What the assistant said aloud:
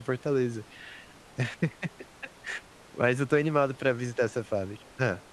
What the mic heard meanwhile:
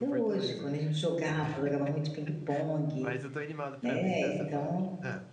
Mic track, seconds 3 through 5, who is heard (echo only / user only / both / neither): both